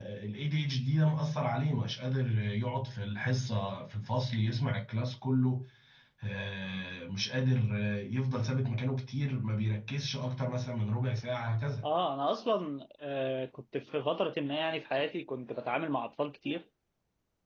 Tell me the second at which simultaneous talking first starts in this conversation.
none

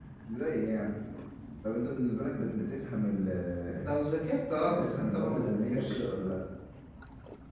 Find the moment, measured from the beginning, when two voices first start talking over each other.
4.7 s

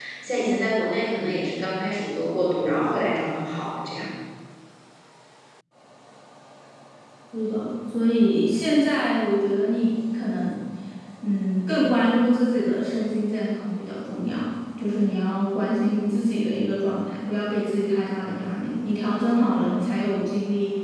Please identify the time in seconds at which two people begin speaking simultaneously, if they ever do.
none

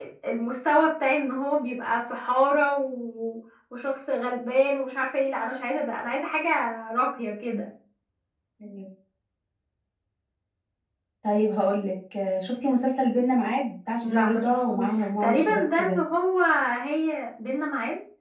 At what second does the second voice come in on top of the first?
14.0 s

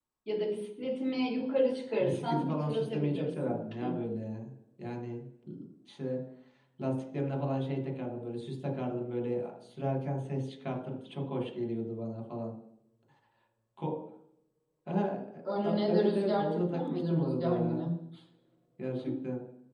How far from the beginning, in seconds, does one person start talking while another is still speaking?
2.0 s

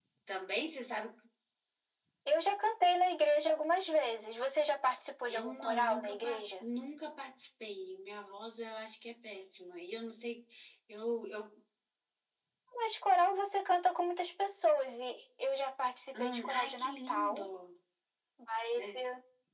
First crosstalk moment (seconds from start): 5.3 s

